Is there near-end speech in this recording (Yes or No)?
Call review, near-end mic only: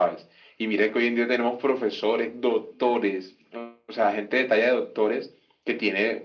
No